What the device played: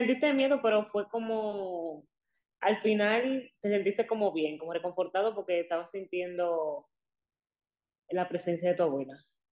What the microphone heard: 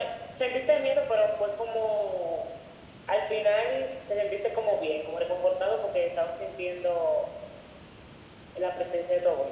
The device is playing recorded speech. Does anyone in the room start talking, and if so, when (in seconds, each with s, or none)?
none